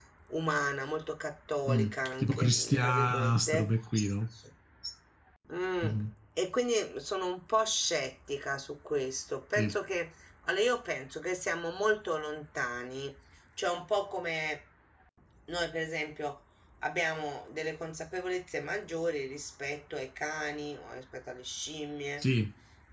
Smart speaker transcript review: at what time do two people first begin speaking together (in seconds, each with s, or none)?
1.7 s